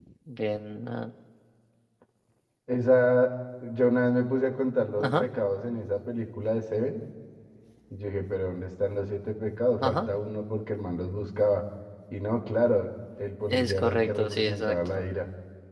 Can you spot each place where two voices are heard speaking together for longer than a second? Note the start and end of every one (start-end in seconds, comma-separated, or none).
13.5-15.0